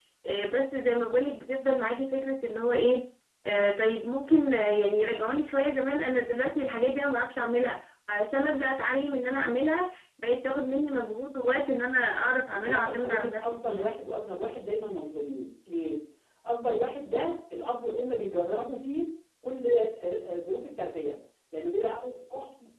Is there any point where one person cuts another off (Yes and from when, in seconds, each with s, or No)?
Yes, from 12.5 s